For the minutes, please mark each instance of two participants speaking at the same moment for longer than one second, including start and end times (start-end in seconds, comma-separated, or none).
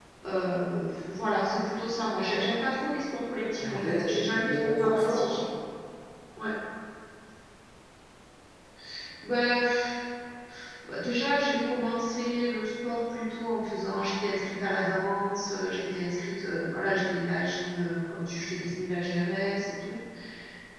3.6-5.3